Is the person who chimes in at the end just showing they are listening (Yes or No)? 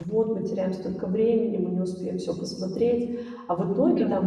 Yes